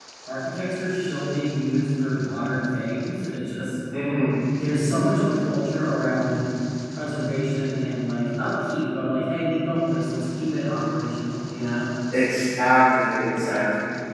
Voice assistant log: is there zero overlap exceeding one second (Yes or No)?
Yes